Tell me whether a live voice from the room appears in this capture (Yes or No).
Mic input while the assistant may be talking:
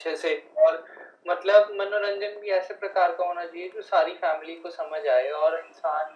No